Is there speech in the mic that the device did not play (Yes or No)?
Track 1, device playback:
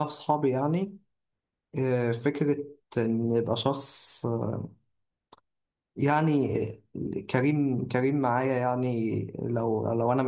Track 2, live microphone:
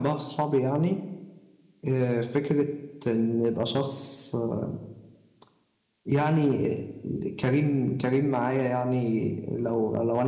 No